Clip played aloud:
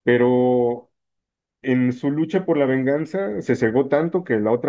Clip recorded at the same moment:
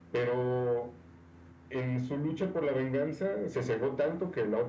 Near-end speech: none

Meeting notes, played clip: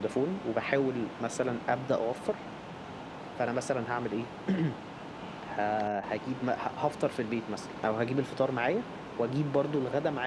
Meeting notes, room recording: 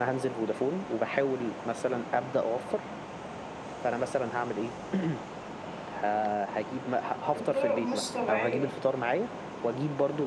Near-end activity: present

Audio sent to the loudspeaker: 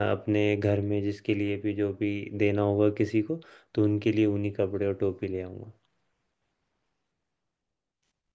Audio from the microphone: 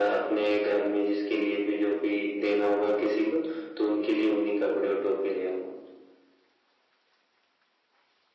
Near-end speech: none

